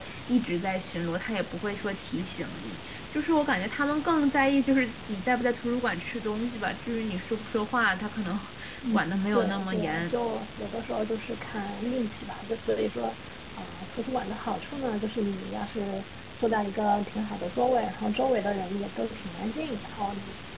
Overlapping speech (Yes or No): Yes